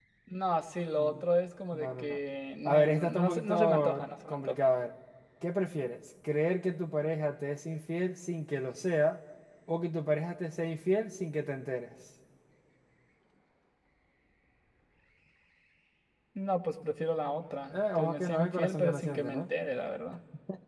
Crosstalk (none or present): present